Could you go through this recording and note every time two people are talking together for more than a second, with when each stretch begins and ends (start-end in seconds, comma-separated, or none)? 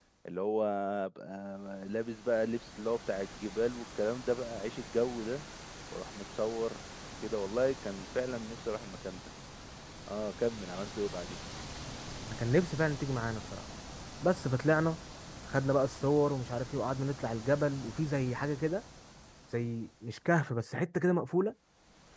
none